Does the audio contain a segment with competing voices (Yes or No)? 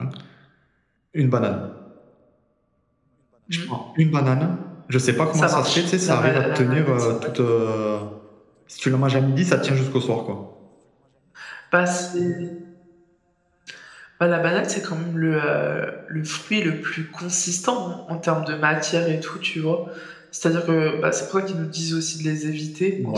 Yes